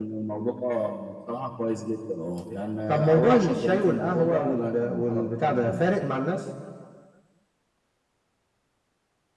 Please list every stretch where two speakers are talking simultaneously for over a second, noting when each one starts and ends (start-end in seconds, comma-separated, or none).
2.9-5.9